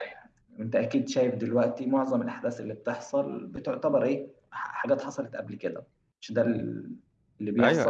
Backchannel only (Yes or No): No